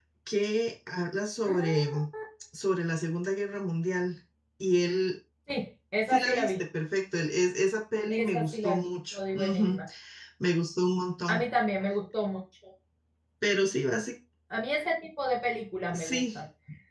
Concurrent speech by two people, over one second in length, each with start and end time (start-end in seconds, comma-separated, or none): 8.1-9.8